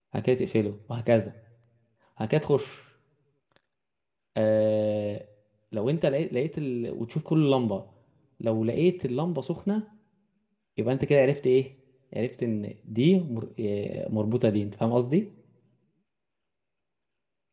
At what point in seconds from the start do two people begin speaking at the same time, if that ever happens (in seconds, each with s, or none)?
none